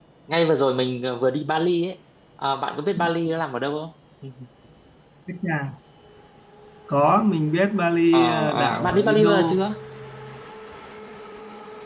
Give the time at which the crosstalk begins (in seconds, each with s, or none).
8.1 s